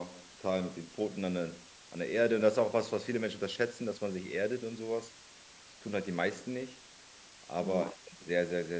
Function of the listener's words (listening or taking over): listening